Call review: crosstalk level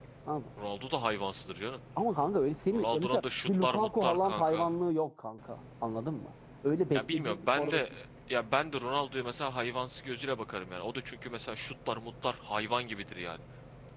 present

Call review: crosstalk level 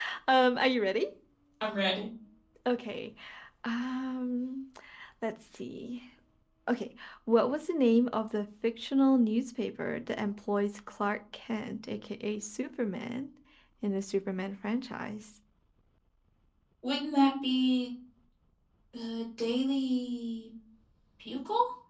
none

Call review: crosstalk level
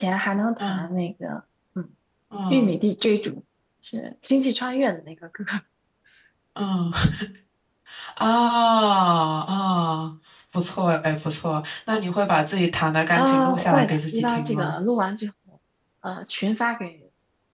present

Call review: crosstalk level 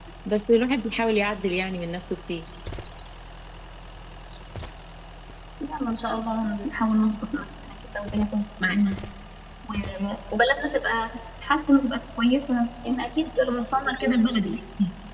none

